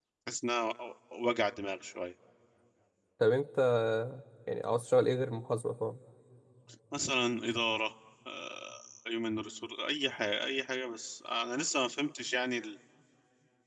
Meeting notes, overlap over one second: none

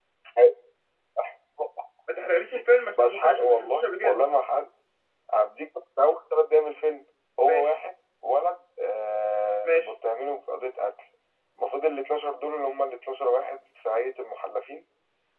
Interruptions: present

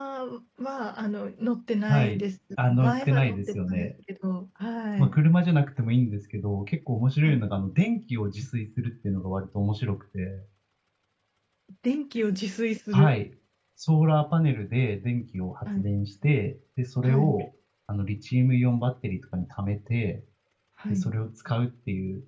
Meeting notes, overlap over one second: present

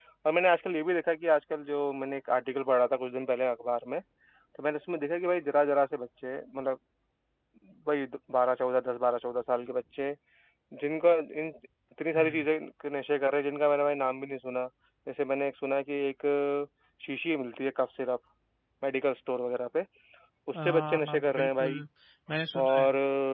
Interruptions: present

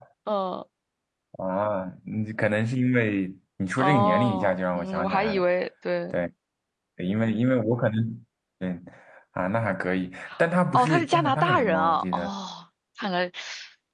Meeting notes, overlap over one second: present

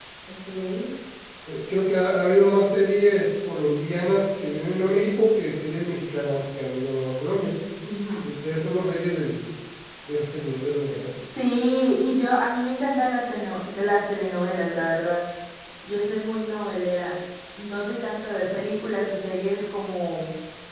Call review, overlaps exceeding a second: none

